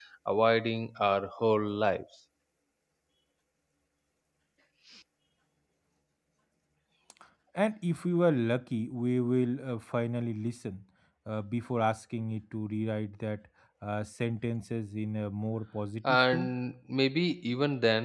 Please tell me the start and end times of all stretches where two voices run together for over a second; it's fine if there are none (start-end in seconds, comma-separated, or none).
none